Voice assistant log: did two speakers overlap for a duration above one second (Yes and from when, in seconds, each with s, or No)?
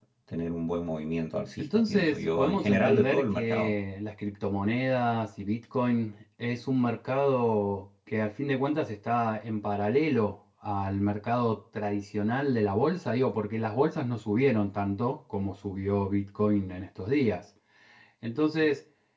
Yes, from 1.6 s